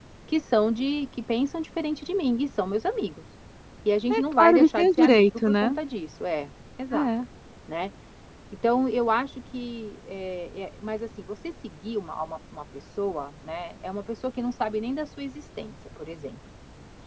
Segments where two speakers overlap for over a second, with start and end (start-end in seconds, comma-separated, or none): 4.1-5.8